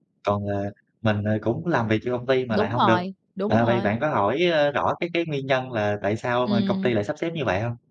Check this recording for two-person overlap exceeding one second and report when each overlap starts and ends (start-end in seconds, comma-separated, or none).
none